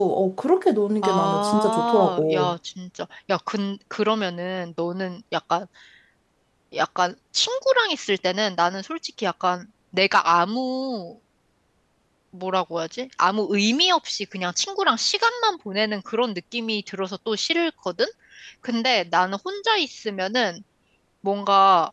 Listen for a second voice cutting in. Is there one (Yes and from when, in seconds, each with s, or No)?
Yes, from 1.0 s